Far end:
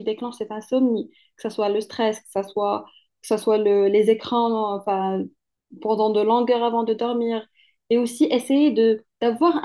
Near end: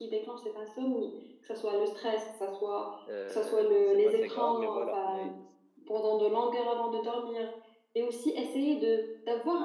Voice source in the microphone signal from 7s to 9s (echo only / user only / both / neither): echo only